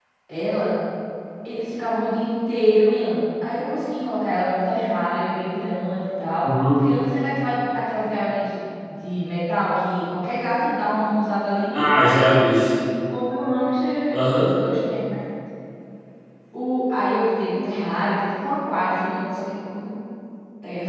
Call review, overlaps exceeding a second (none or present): none